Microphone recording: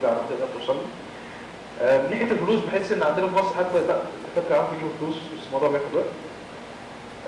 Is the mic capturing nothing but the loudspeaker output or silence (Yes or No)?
Yes